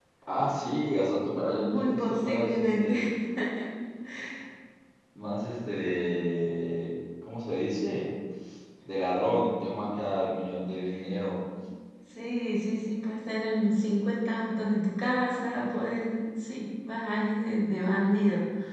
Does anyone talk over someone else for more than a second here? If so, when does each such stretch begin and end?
1.6-2.9

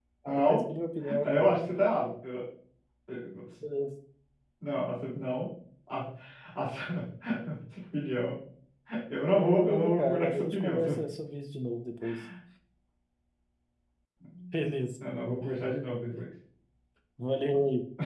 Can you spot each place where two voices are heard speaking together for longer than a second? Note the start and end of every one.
9.4-10.9

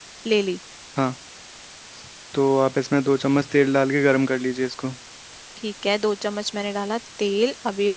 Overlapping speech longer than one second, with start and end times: none

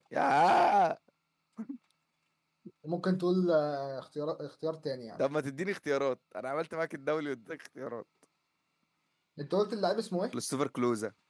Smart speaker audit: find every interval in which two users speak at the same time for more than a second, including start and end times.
none

